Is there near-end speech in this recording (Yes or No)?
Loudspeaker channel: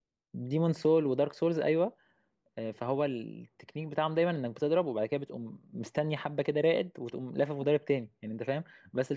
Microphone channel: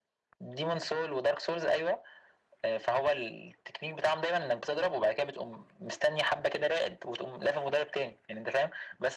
No